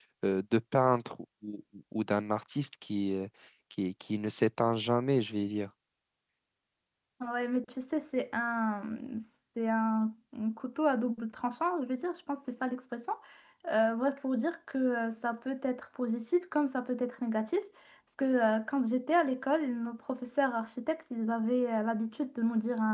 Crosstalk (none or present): none